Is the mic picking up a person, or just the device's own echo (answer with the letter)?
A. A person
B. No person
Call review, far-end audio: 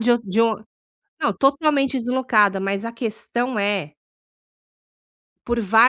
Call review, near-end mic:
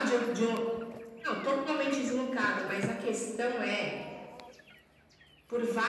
B